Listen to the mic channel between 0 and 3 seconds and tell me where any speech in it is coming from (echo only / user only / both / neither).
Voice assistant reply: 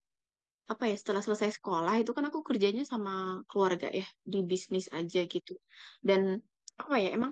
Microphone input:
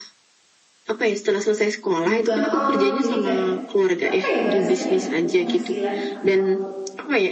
both